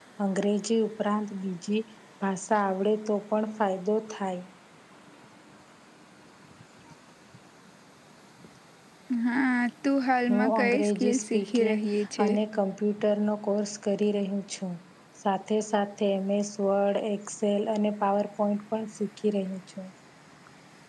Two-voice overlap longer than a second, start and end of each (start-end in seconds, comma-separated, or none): 10.3-11.8